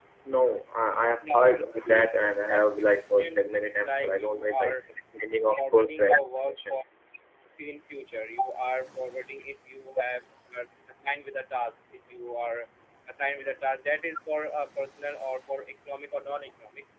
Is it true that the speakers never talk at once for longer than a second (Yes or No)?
No